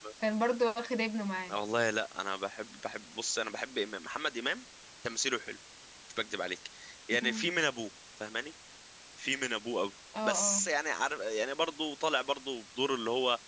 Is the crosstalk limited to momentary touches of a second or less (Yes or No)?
Yes